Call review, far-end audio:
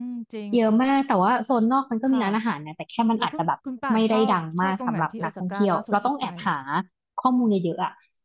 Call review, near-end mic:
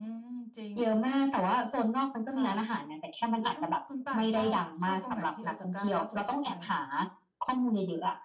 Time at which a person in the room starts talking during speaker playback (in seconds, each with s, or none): none